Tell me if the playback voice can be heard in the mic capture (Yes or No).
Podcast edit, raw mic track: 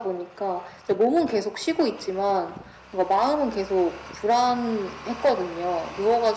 Yes